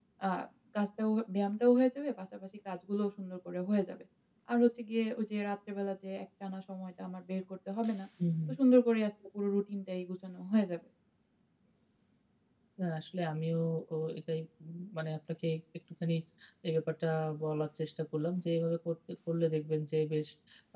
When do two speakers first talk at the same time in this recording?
none

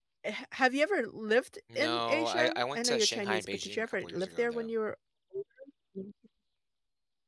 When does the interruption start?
1.7 s

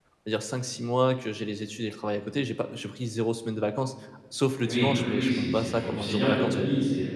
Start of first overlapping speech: 4.6 s

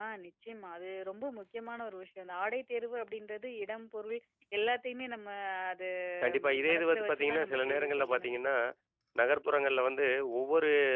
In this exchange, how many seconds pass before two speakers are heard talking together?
6.5 s

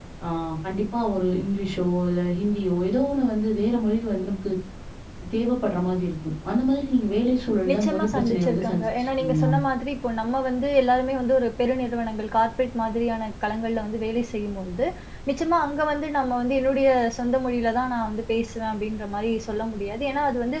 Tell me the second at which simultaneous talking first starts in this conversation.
7.7 s

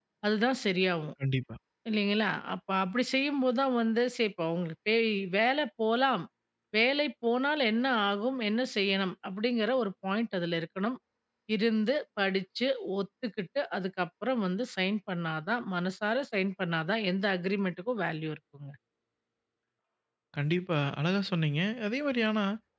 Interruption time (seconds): none

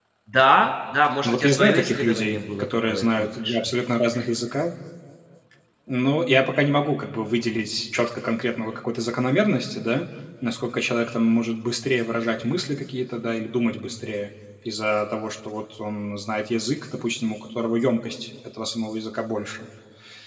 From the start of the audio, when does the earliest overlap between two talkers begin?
1.2 s

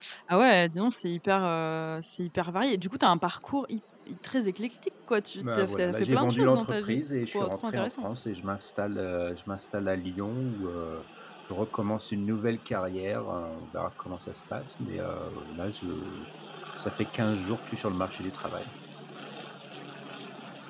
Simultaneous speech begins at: 5.4 s

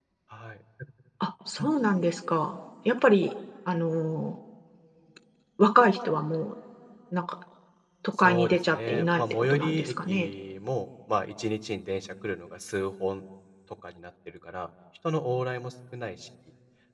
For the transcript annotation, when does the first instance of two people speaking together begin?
8.2 s

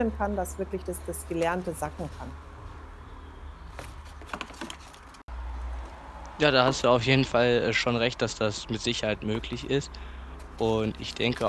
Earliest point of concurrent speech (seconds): none

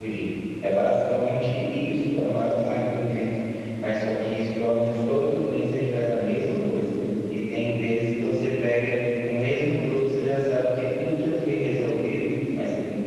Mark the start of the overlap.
none

